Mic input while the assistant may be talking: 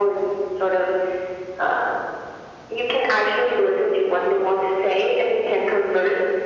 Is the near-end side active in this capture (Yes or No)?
No